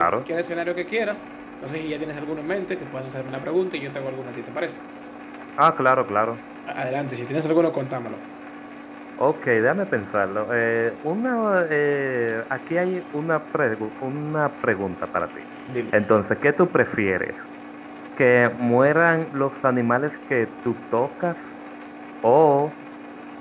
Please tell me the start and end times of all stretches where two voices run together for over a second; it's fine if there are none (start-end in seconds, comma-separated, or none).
none